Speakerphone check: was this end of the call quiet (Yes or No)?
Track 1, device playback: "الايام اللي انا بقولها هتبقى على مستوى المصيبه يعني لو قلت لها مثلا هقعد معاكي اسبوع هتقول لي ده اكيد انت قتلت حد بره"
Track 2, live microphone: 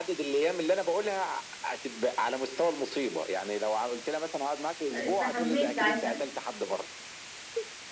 No